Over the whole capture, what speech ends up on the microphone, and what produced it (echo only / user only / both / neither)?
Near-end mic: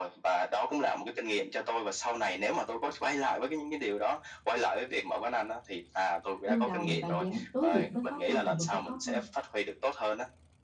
both